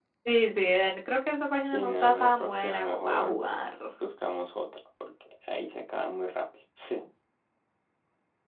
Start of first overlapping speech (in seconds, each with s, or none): 1.7 s